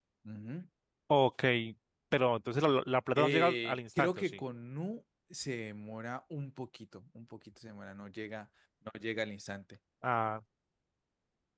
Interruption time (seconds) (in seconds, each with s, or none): 3.1 s